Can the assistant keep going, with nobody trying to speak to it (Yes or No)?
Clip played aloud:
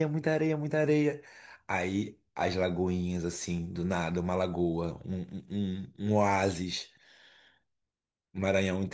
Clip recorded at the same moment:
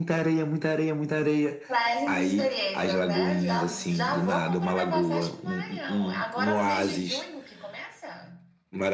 No